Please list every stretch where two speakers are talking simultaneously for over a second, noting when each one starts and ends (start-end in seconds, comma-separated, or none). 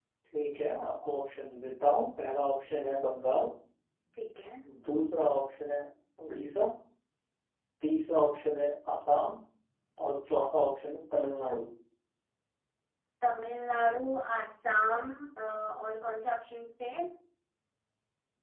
none